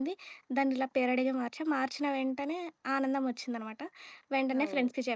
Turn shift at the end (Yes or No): No